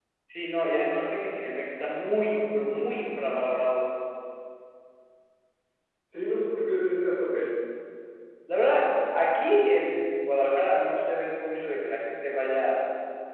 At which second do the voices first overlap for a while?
none

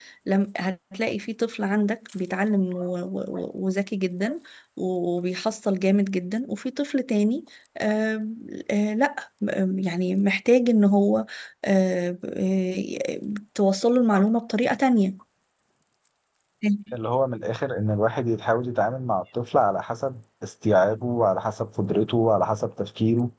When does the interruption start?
none

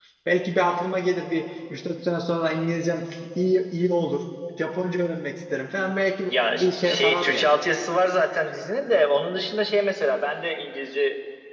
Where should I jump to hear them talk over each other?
6 s

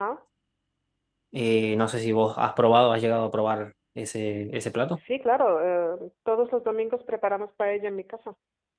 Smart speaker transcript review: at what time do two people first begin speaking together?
none

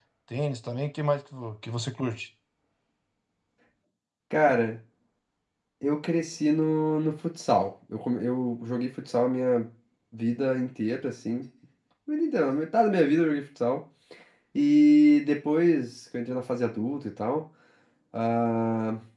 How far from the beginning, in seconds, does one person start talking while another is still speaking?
none

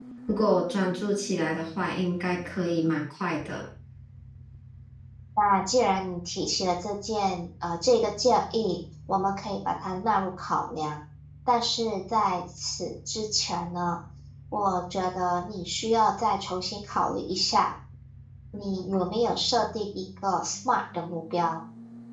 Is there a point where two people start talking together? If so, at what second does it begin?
none

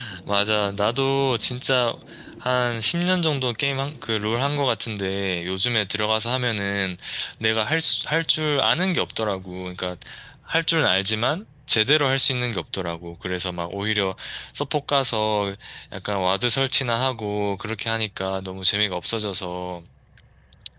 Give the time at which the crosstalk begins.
none

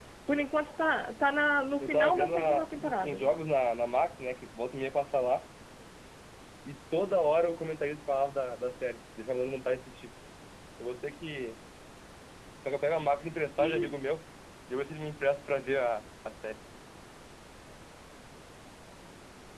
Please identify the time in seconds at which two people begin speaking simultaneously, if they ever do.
2 s

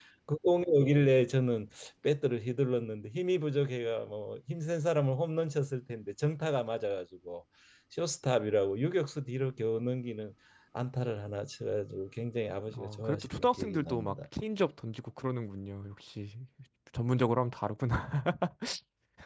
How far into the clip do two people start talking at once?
13 s

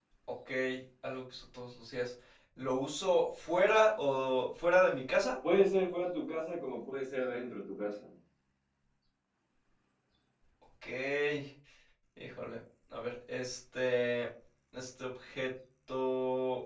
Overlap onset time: none

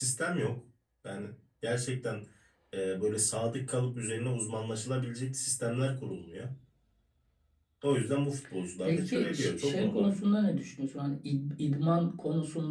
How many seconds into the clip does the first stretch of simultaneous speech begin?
9 s

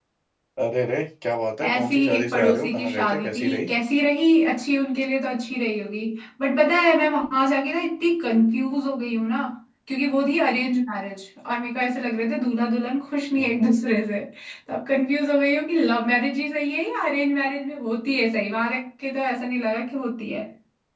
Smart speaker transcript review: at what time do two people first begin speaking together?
2 s

